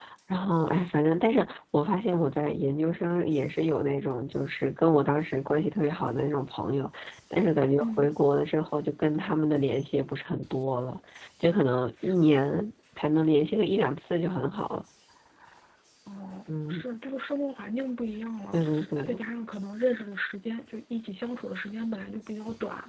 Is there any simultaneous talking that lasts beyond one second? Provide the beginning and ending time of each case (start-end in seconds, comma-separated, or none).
none